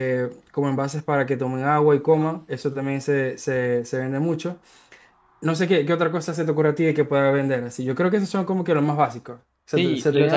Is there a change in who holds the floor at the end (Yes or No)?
Yes